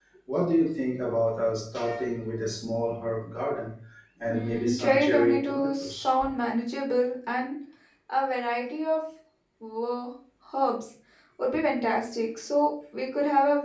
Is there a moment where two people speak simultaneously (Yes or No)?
Yes